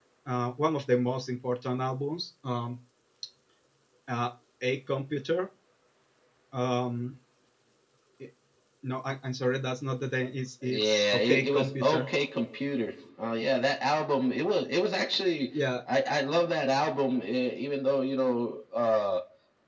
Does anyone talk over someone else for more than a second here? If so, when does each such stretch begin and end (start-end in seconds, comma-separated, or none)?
10.6-12.1